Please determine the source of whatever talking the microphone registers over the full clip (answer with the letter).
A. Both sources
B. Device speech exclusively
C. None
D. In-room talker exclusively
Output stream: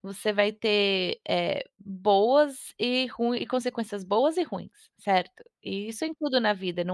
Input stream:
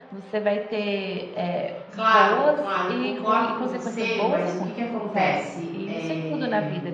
A